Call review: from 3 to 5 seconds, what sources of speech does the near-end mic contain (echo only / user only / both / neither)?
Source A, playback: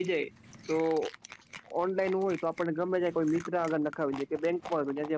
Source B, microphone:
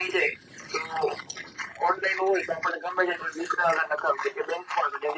echo only